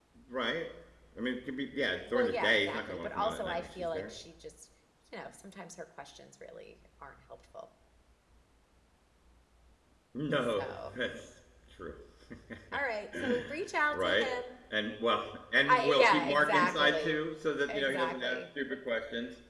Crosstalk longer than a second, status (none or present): present